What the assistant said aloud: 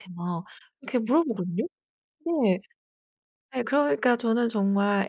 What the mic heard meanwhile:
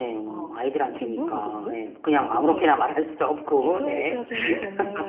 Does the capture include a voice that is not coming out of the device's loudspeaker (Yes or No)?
Yes